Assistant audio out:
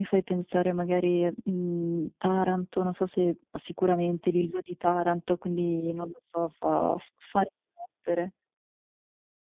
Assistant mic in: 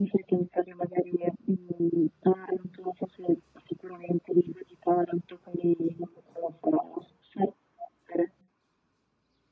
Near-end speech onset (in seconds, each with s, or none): none